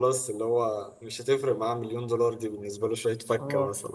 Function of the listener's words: taking over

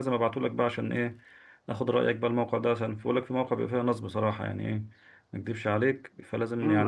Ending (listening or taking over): taking over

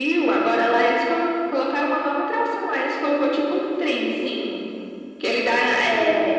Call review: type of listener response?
listening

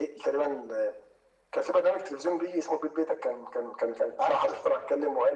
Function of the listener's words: listening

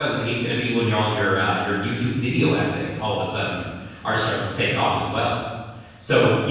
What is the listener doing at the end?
listening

